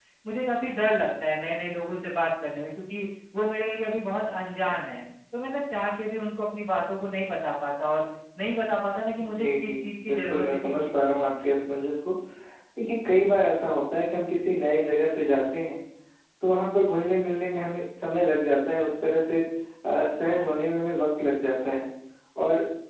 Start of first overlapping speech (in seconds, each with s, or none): 9.2 s